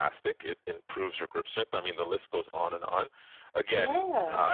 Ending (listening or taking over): listening